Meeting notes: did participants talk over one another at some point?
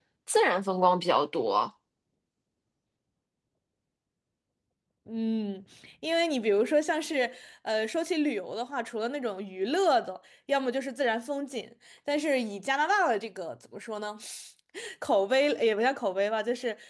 No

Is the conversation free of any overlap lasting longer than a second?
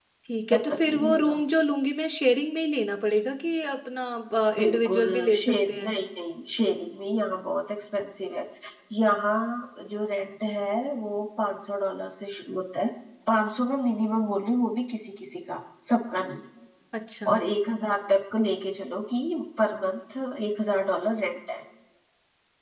No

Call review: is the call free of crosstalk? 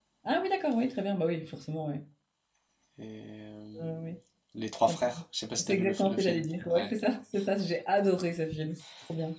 No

